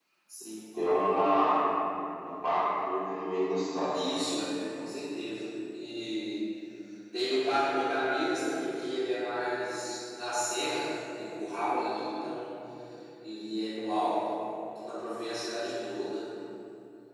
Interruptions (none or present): none